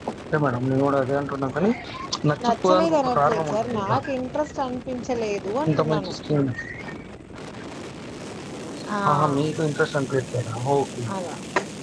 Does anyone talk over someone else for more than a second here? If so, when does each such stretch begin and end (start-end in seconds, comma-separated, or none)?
2.4-4.0